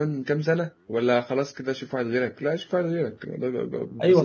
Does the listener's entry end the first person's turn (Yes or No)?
Yes